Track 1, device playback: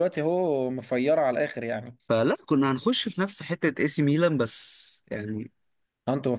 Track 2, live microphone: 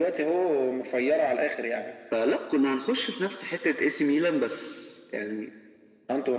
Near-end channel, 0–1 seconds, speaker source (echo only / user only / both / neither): echo only